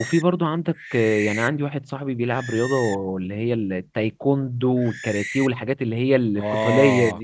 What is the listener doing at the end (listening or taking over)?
taking over